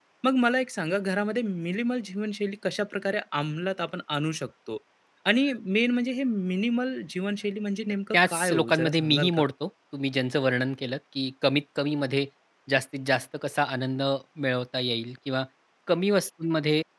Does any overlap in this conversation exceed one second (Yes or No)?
Yes